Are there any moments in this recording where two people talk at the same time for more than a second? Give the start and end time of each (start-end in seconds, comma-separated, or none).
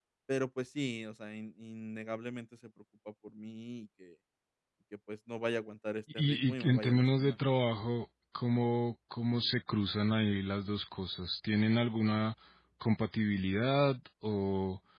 6.1-7.4